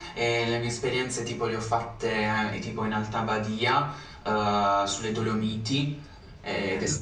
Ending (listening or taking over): listening